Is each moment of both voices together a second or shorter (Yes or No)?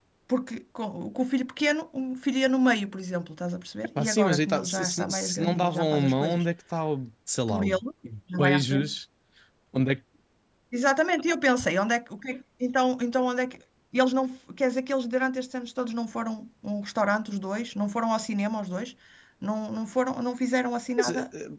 No